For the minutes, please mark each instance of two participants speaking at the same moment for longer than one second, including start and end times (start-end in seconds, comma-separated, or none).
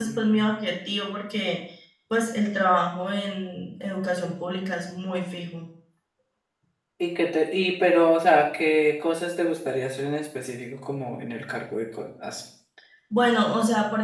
none